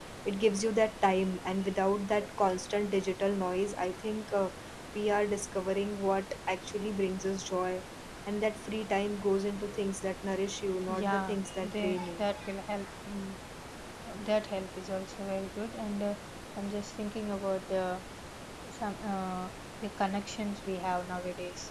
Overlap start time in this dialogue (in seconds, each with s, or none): 10.9 s